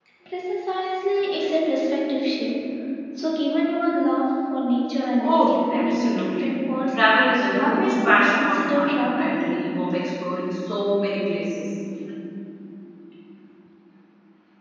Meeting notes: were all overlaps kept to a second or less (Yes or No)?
No